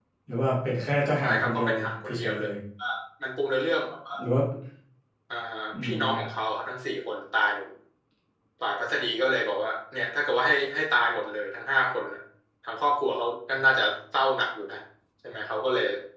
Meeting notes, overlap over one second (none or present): present